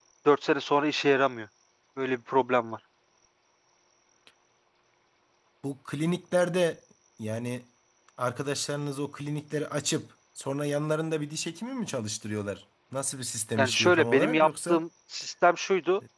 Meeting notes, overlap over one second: present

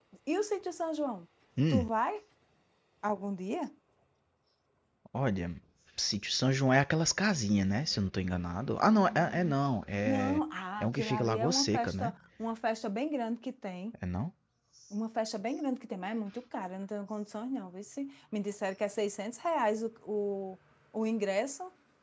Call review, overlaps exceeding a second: present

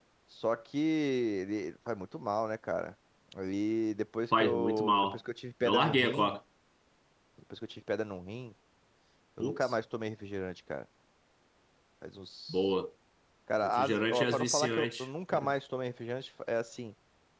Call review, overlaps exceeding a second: present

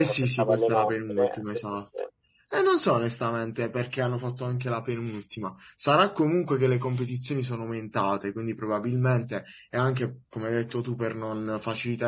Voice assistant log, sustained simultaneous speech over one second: present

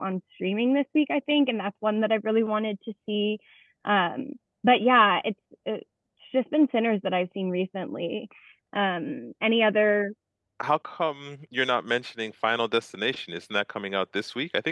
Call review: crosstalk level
none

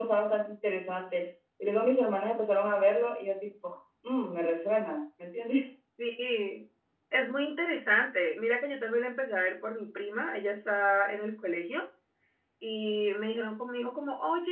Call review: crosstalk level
none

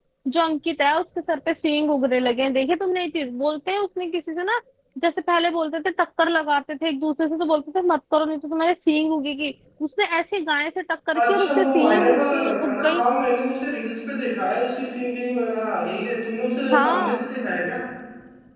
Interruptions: present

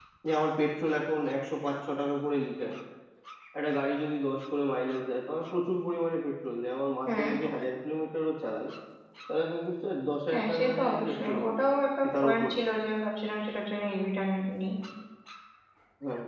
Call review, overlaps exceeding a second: present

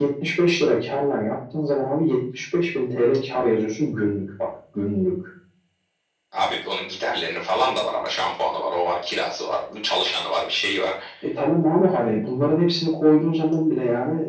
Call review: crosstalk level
none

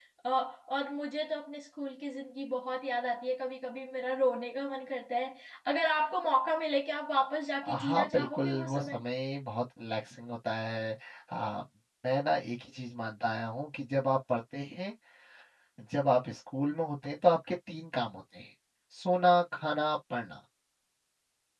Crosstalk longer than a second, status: present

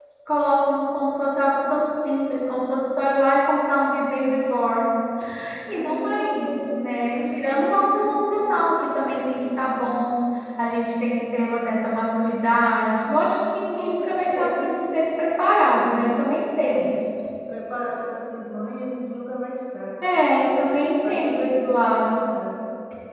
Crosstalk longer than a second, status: present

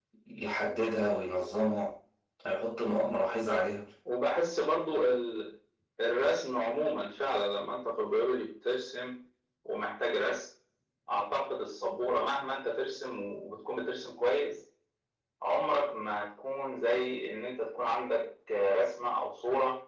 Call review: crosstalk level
none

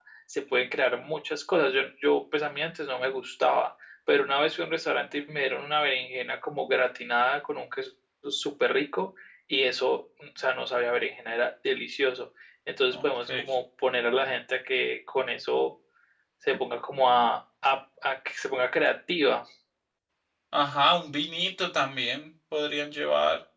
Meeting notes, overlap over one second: none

